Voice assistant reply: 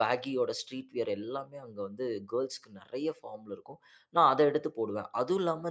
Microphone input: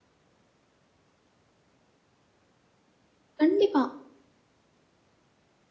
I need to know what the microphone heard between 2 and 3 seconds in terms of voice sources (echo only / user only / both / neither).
neither